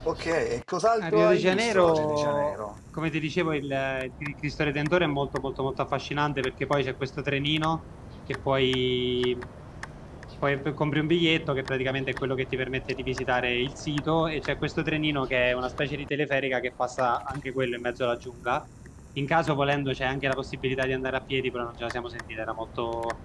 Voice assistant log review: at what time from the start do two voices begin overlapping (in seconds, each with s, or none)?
1.0 s